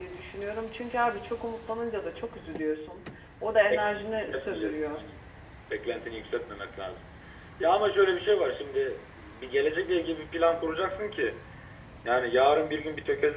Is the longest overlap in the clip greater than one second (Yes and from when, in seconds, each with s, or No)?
Yes, from 3.6 s